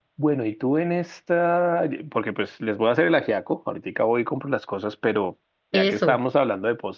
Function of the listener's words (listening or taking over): listening